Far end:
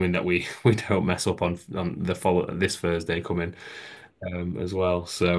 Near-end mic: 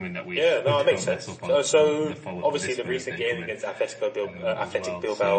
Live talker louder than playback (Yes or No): Yes